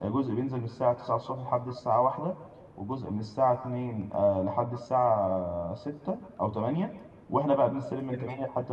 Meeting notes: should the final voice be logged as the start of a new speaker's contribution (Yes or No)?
No